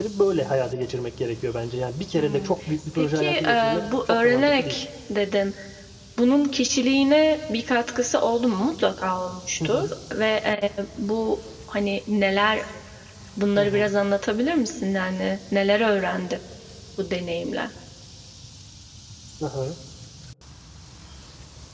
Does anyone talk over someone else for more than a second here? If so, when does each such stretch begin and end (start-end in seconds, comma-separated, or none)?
3.0-4.8